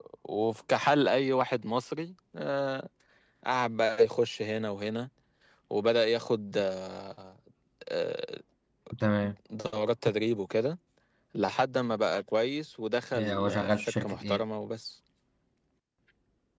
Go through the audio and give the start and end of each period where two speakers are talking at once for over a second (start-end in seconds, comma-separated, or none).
13.2-14.4